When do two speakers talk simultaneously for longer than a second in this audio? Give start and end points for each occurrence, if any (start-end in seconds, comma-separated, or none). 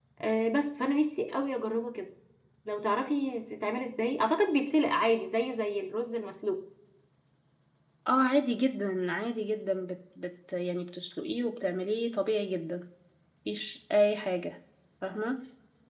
none